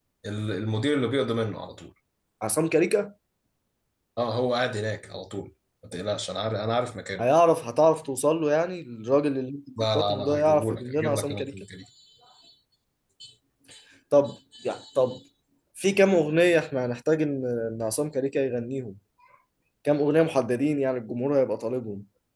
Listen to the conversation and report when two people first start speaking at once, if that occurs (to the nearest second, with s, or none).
10 s